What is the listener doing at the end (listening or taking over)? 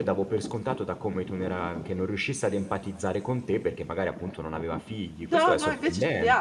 taking over